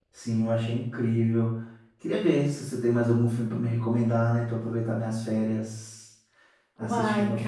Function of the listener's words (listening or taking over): taking over